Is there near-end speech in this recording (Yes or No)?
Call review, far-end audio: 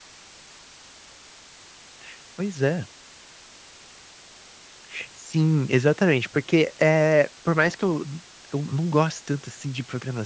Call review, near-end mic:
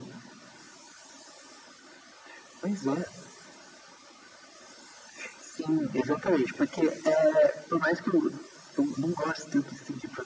No